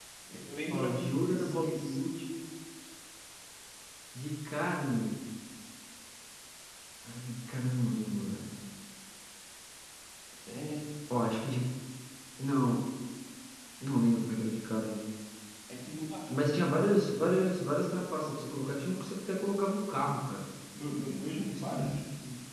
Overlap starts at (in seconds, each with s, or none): 0.7 s